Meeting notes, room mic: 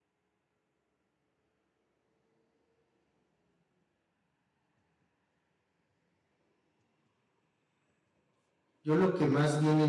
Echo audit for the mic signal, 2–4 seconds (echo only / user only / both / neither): neither